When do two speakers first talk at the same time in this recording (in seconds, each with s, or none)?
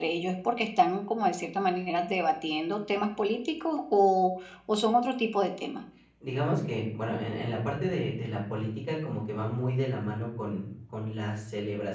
none